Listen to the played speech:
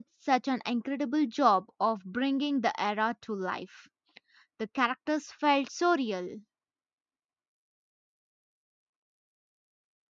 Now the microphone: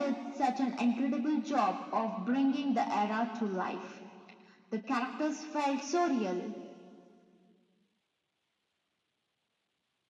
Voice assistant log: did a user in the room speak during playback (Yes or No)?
No